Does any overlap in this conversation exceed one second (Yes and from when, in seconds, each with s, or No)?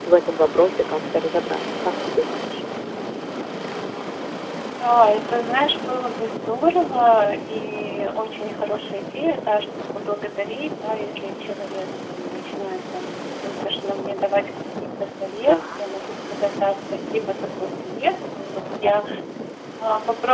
No